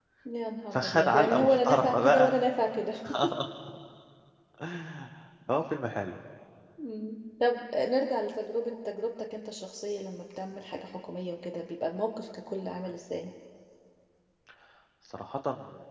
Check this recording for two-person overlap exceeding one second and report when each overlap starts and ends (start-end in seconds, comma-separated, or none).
0.7-2.3